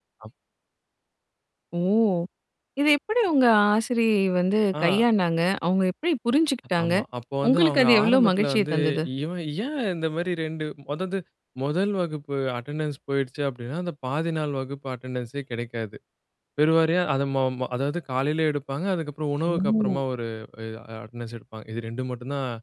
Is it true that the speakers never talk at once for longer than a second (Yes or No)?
No